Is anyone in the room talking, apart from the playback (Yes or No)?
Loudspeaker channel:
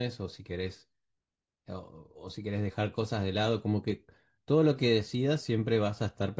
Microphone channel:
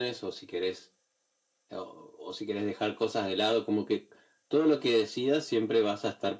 No